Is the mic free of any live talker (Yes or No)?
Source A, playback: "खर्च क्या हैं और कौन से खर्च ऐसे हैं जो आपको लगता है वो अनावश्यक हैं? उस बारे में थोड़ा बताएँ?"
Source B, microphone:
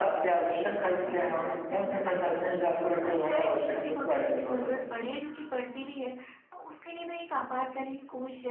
No